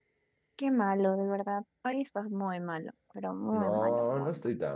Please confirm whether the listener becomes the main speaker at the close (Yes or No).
Yes